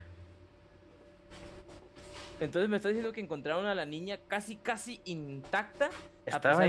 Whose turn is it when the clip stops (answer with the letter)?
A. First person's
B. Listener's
A